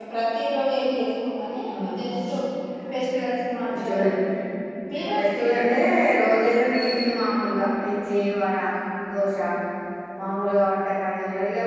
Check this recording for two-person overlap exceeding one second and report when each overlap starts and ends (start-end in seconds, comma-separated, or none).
none